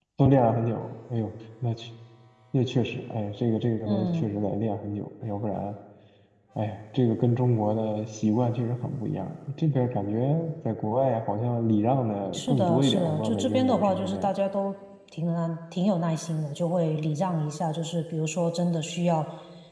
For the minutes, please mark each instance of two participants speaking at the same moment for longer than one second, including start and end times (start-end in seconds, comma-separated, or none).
12.3-14.3